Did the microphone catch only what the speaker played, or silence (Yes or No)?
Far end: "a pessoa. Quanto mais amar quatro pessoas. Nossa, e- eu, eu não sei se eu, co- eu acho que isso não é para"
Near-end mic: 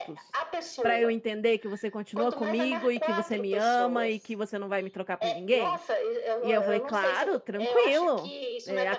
No